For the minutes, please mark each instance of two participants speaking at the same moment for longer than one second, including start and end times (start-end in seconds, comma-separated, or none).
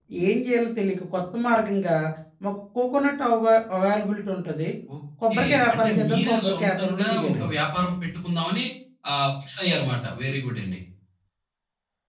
5.3-7.5